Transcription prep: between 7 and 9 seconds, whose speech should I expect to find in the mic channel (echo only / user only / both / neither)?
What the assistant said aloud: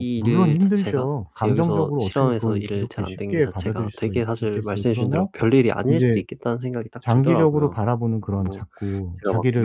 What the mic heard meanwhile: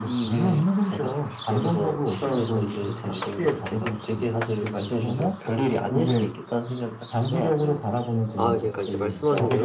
both